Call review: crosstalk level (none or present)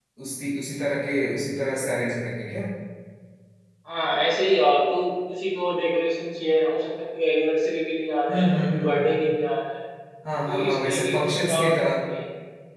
present